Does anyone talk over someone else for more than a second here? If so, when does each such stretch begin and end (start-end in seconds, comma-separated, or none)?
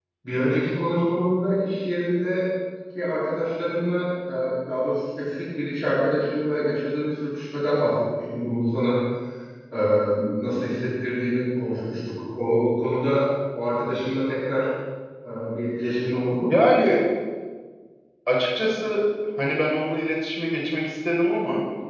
none